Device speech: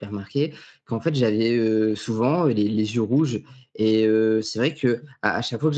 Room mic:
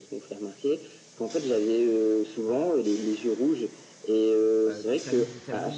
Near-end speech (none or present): present